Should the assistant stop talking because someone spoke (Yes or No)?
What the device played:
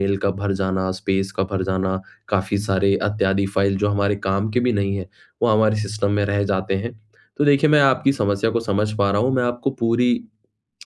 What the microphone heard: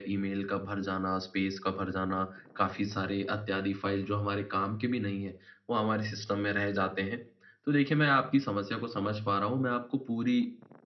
No